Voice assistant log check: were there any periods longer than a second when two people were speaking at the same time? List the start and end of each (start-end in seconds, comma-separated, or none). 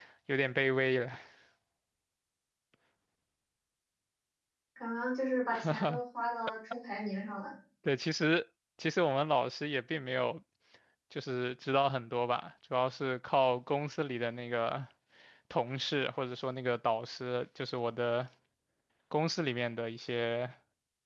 none